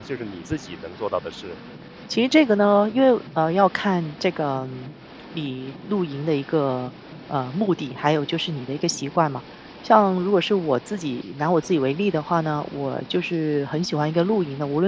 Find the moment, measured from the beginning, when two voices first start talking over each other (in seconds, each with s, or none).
none